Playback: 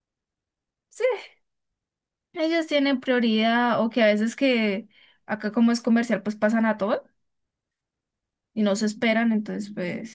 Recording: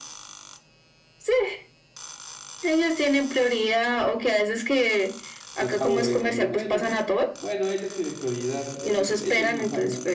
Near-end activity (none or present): present